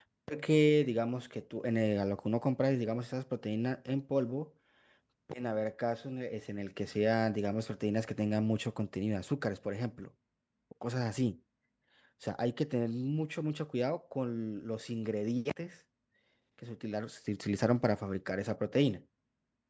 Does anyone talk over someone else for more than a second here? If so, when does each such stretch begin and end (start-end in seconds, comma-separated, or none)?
none